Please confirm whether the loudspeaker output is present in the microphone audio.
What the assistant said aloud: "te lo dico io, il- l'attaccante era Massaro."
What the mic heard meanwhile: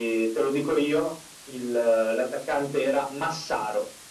Yes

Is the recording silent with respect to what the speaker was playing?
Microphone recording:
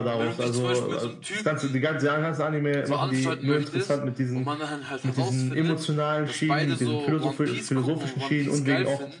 No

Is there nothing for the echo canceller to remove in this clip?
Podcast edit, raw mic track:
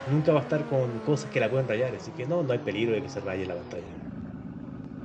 Yes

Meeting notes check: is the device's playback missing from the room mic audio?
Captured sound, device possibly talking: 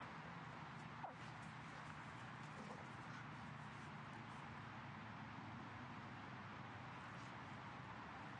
Yes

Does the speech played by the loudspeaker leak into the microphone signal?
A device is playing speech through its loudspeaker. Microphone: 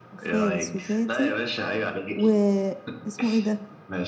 Yes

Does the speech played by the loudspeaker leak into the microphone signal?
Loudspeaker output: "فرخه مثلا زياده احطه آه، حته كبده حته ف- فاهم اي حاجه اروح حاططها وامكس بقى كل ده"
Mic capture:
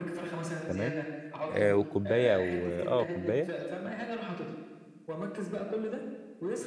Yes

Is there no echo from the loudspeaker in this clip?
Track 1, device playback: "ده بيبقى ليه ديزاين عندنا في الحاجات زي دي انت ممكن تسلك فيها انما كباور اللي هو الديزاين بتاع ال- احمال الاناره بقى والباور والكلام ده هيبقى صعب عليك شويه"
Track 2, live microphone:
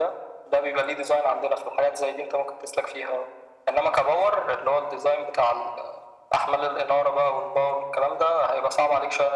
No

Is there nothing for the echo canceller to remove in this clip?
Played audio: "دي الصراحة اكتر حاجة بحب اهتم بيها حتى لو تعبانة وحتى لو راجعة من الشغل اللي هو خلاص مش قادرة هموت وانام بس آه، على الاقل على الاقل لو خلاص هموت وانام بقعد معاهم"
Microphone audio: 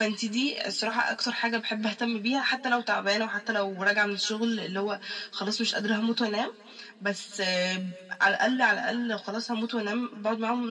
No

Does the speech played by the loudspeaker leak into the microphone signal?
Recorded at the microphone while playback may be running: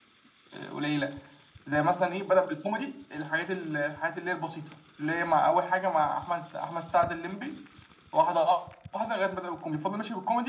Yes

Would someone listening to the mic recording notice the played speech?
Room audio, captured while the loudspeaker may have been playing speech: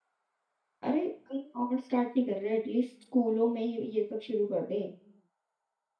No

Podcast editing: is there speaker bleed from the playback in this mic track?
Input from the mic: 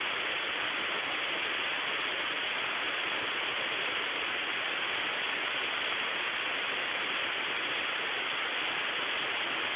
No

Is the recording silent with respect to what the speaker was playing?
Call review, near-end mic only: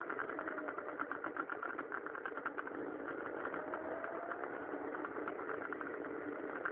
Yes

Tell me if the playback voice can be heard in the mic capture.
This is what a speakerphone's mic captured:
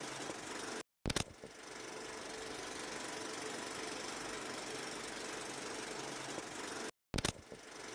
No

